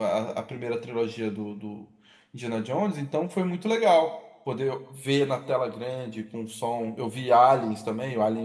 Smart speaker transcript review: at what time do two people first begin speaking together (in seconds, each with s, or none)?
none